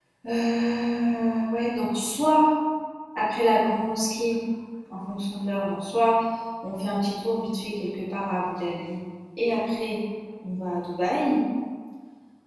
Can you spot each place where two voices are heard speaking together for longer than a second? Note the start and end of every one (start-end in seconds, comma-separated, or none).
none